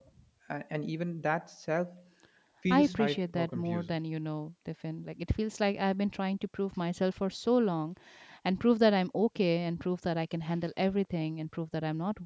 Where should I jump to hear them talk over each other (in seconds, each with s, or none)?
2.7 s